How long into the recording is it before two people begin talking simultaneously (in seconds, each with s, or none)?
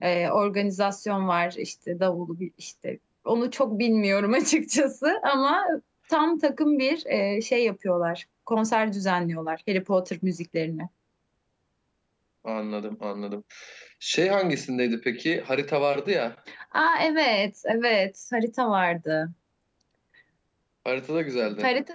none